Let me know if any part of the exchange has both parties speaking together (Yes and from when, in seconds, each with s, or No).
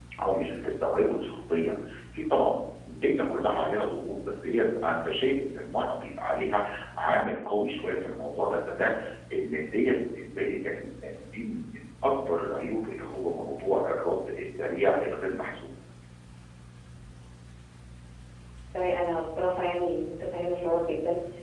No